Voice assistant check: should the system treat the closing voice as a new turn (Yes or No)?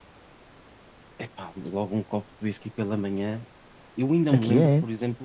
No